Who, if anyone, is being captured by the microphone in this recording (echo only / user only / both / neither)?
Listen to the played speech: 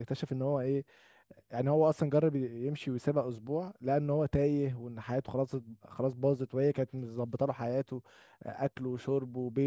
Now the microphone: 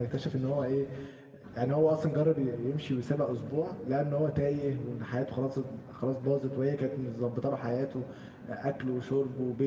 echo only